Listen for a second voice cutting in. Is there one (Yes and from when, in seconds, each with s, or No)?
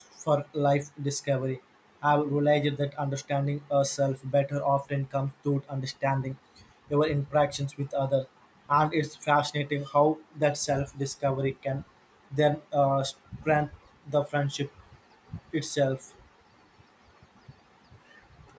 No